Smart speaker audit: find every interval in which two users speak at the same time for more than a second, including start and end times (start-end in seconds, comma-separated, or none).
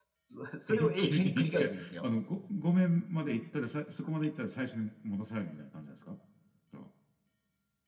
0.7-2.1